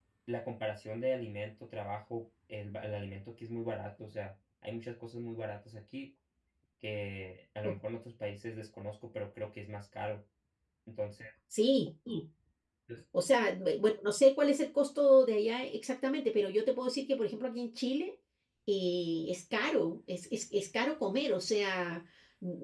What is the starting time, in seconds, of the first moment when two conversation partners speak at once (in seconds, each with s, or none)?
none